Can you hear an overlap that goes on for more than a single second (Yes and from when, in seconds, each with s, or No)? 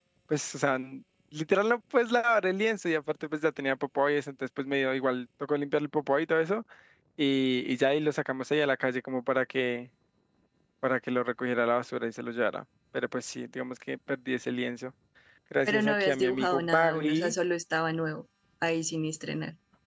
Yes, from 15.6 s